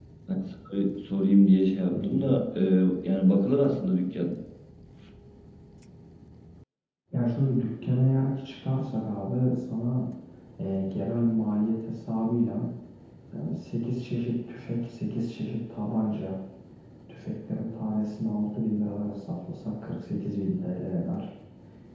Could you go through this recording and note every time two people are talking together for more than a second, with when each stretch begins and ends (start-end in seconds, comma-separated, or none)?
none